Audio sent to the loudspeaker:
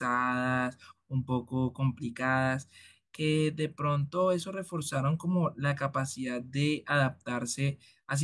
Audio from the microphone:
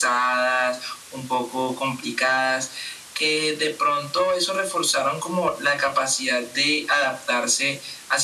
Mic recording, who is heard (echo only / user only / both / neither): echo only